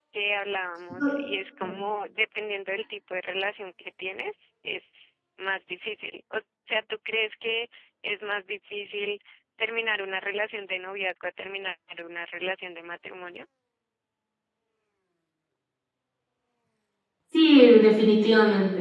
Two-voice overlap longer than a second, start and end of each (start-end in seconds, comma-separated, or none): none